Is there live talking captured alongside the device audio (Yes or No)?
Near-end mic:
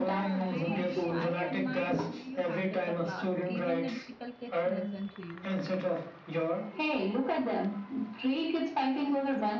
Yes